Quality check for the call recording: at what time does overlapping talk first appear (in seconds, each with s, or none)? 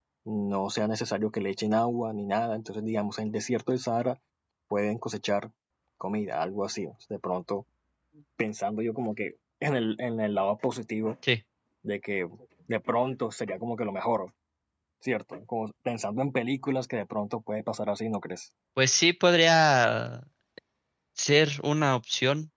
none